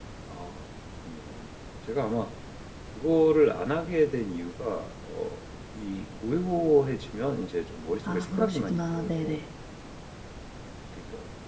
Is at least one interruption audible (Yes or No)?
Yes